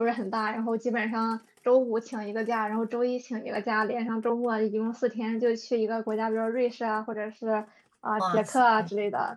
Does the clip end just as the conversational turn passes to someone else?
No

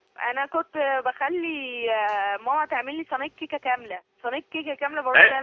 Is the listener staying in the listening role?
No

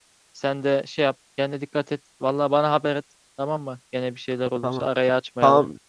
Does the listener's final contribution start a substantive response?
Yes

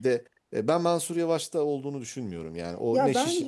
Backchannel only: No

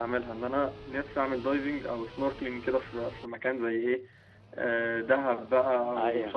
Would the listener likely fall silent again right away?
Yes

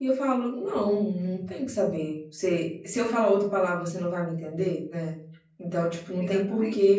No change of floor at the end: Yes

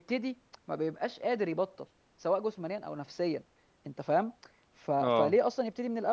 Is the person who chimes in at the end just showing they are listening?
Yes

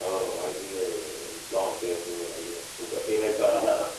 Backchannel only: Yes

